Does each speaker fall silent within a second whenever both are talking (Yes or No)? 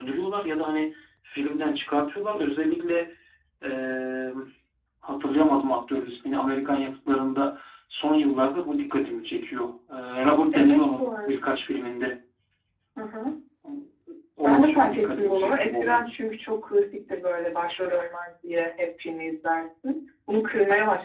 No